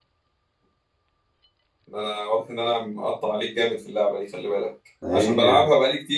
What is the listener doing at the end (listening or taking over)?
listening